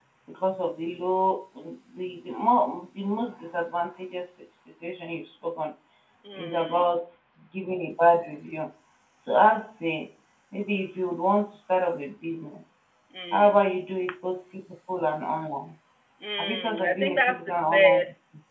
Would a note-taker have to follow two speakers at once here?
Yes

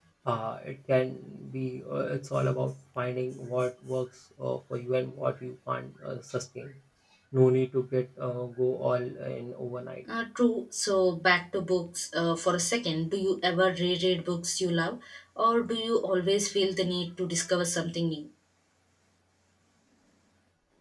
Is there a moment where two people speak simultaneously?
No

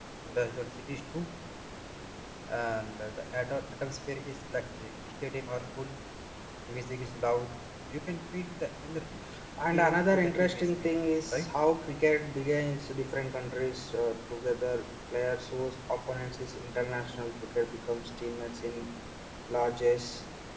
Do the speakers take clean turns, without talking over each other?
No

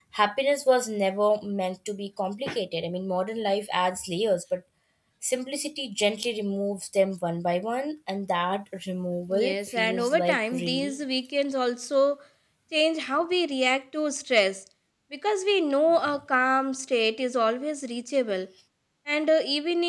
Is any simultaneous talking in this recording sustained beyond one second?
Yes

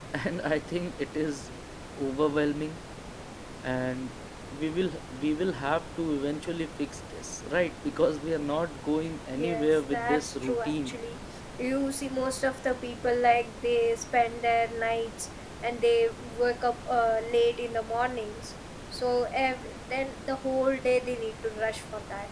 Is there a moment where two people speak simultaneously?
Yes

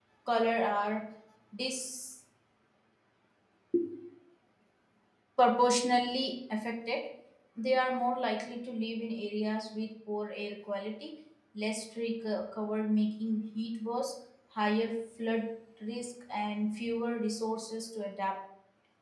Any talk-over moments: No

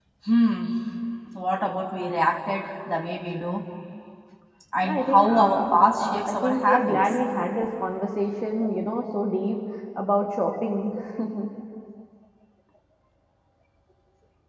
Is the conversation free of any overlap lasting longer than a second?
No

